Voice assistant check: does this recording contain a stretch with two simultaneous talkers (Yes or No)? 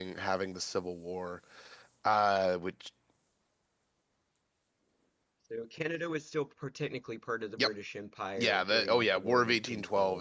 Yes